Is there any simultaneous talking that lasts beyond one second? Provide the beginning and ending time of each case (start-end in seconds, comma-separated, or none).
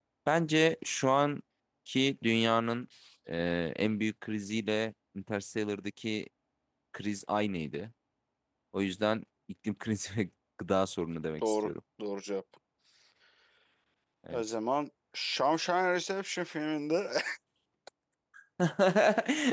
none